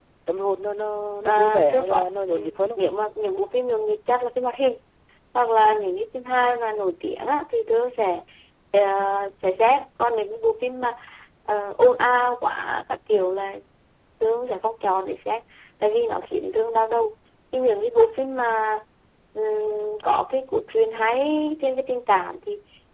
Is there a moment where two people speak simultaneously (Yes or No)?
Yes